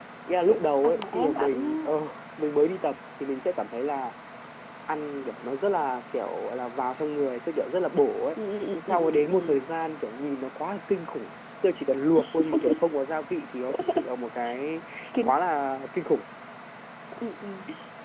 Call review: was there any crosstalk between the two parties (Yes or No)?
Yes